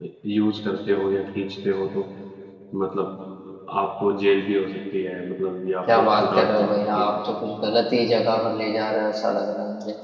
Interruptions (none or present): present